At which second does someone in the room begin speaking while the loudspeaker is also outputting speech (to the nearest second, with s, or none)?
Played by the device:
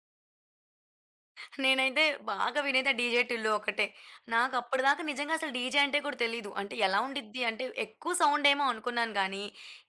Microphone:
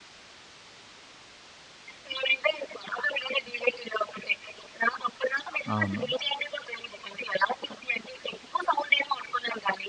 6 s